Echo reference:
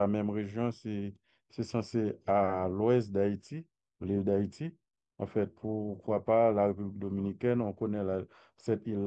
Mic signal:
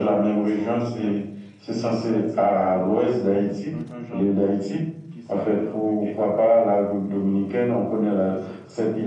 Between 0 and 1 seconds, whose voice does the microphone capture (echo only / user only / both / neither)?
both